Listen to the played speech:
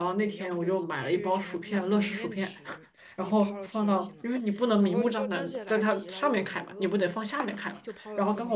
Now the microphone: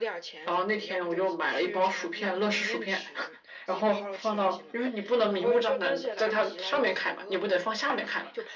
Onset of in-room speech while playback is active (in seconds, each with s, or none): none